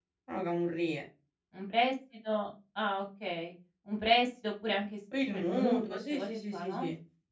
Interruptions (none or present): present